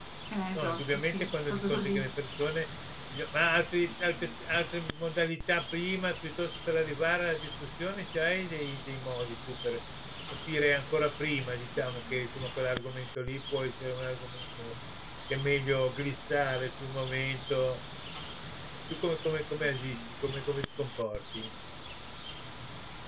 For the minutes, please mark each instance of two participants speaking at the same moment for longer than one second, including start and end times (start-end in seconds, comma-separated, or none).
0.6-2.0